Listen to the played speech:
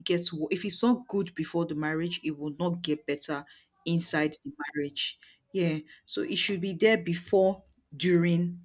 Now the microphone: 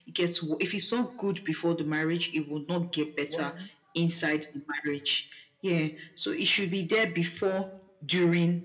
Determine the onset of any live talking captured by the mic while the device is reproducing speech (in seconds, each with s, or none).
3.2 s